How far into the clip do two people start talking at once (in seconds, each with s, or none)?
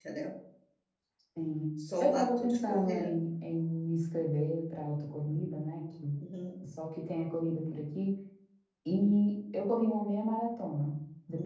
2.0 s